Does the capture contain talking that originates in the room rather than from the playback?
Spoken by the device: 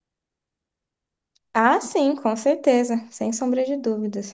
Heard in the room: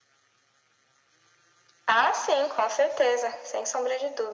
No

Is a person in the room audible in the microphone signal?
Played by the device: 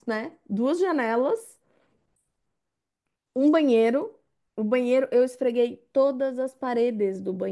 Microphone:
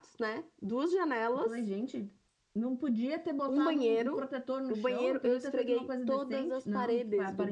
Yes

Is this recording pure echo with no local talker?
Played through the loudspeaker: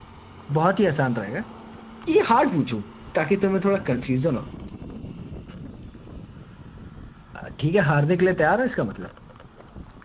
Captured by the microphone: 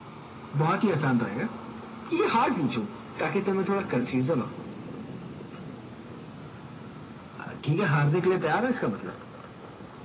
Yes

